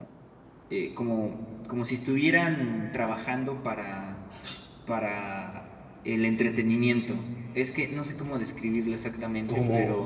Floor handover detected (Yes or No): No